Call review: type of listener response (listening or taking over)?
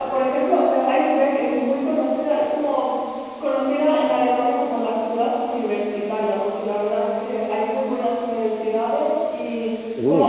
listening